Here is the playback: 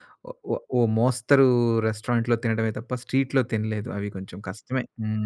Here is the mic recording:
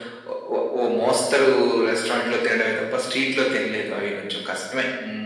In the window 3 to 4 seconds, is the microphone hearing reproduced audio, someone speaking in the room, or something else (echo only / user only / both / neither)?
echo only